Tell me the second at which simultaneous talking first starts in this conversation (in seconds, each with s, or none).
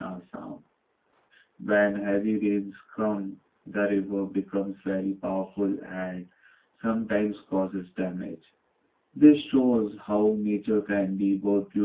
none